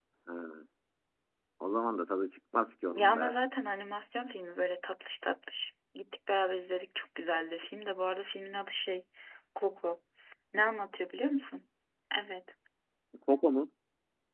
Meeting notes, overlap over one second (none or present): none